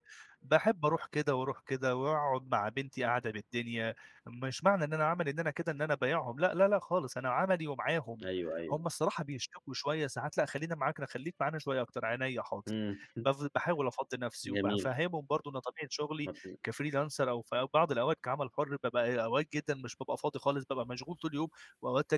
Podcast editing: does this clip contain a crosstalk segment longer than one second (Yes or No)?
No